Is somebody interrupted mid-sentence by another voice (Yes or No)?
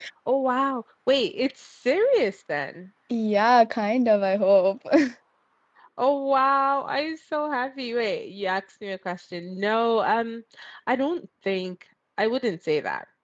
No